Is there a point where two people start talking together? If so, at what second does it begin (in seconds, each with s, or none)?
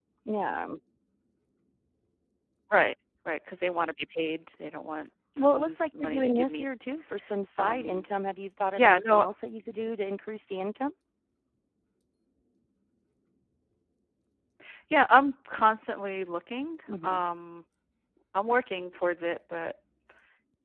5.4 s